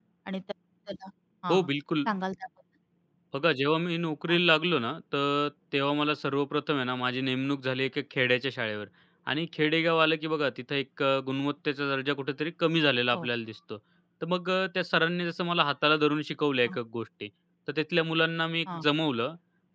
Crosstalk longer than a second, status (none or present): none